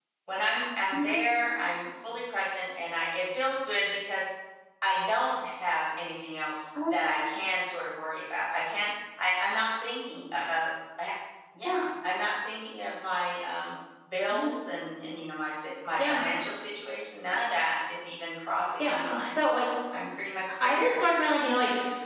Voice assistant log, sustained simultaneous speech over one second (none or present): none